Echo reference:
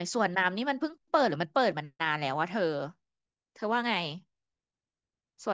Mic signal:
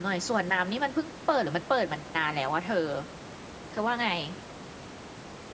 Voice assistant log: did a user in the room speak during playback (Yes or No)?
No